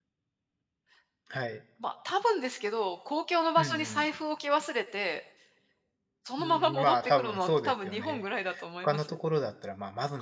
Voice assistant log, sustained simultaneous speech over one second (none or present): present